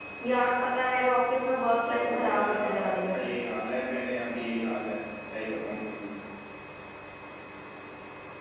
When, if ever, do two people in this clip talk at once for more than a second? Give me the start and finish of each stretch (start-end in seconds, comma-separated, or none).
1.8-3.2